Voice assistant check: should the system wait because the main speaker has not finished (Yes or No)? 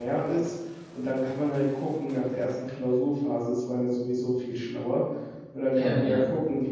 Yes